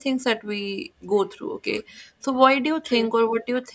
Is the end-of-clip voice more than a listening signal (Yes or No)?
No